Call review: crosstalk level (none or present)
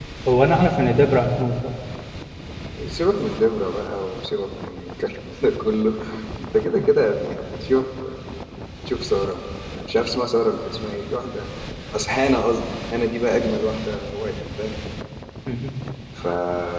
none